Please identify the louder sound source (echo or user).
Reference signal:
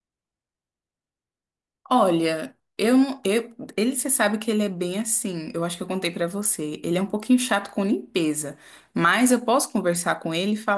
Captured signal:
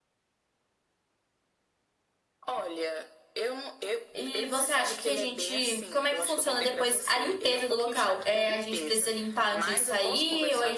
user